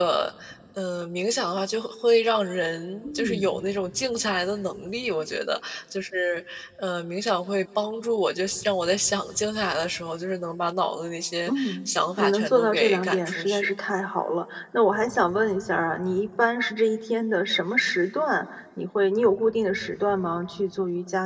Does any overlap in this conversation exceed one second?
Yes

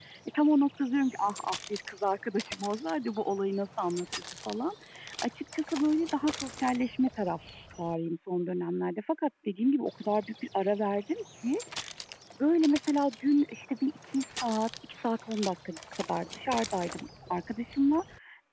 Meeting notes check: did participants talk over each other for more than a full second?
No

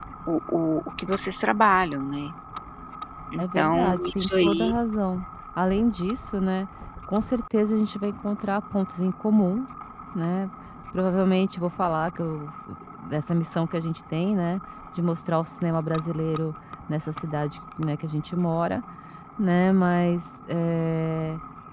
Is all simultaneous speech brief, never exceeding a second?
No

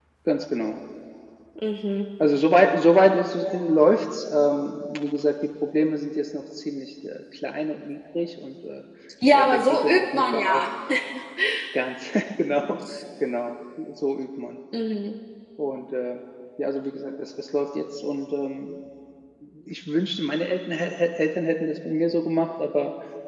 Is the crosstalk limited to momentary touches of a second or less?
No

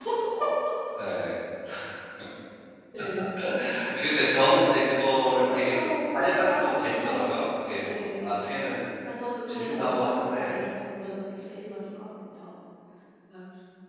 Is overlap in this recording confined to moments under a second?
No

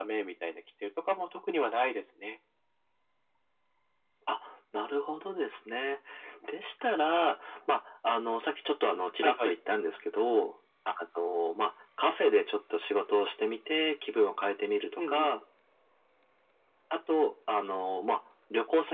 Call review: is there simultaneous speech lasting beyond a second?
No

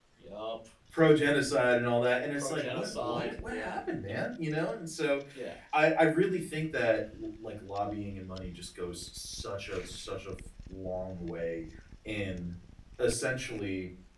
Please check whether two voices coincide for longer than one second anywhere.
Yes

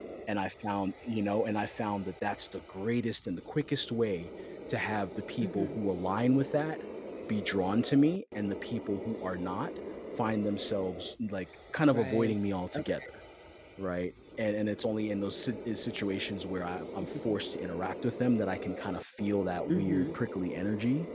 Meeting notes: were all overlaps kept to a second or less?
Yes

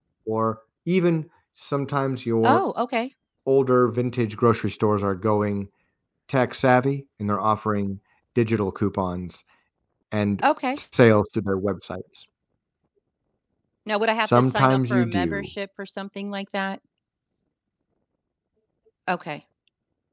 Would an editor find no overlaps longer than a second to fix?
No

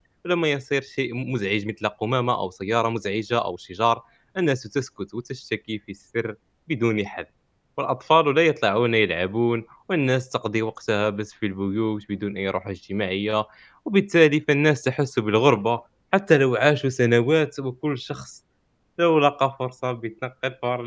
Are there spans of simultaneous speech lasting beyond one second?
No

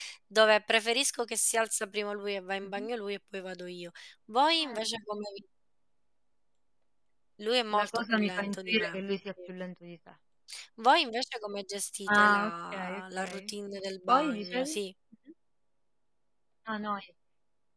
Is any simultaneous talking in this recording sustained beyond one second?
Yes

